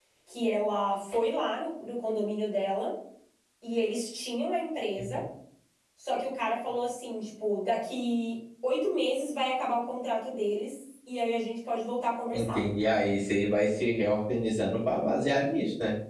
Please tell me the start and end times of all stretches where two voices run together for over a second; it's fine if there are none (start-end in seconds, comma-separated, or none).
none